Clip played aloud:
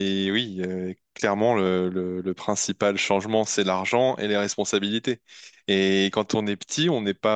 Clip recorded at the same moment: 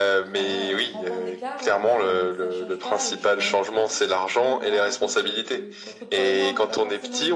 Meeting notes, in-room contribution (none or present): present